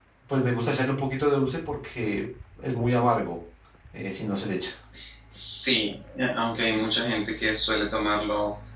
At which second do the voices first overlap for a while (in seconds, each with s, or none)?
none